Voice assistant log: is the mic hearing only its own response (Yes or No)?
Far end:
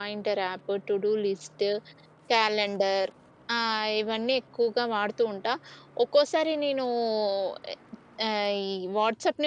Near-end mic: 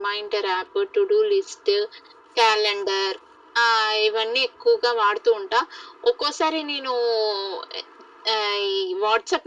Yes